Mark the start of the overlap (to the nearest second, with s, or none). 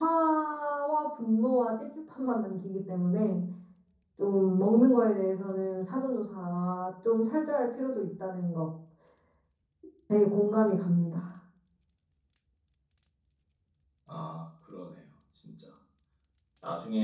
none